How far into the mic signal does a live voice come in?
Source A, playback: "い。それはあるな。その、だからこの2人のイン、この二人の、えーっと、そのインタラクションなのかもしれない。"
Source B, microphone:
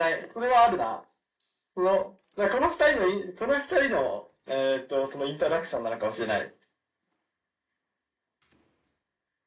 none

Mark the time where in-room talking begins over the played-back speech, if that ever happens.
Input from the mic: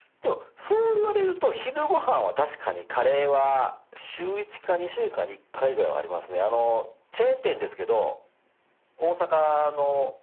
none

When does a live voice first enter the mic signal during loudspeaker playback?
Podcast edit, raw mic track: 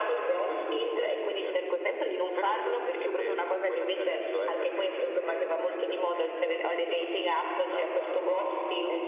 none

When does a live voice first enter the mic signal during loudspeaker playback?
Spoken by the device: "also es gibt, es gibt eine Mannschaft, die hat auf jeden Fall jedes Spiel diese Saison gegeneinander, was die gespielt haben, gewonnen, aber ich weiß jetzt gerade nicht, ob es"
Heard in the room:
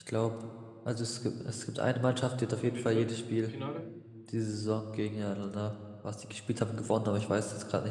3 s

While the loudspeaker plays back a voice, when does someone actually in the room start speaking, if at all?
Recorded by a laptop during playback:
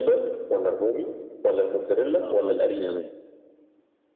2 s

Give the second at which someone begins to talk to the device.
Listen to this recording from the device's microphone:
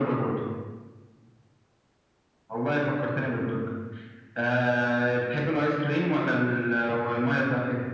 none

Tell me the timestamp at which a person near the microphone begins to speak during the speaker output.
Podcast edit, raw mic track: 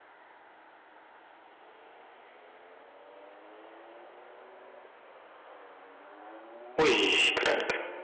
7 s

